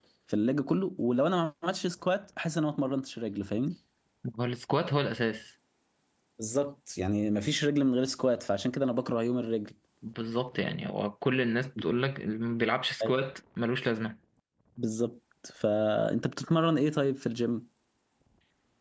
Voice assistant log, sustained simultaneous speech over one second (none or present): none